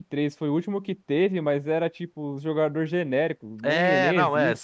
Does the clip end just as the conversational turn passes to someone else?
Yes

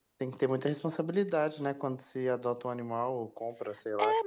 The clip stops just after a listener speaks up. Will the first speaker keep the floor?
No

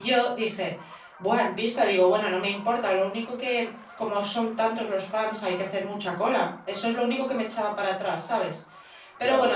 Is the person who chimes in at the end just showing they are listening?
No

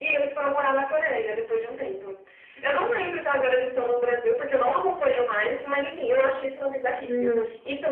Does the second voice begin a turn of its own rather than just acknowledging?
Yes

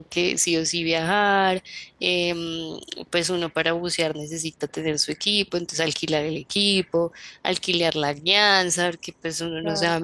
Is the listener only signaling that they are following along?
Yes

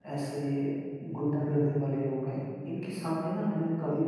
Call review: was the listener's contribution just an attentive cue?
Yes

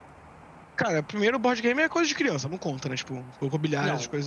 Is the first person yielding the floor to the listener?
Yes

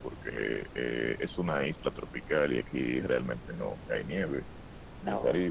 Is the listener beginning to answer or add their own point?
No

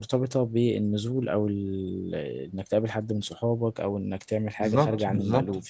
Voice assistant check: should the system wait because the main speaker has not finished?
No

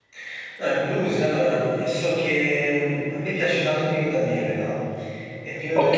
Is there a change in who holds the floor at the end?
No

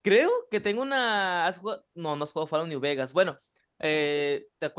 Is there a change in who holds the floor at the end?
No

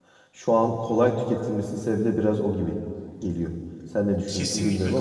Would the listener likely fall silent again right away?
No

